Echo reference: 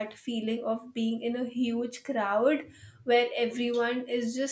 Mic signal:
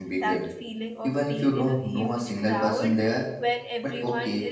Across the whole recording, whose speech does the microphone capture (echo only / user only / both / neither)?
both